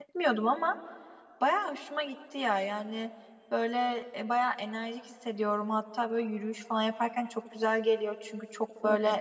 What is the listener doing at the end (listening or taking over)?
listening